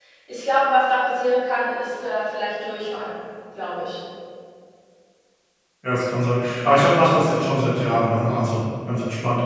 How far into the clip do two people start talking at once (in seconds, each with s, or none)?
none